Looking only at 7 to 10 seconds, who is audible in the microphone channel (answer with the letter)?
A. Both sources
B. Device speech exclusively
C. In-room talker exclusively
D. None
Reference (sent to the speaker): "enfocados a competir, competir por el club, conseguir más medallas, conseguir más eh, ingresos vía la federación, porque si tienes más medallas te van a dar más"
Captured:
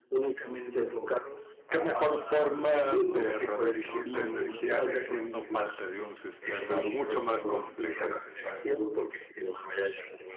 A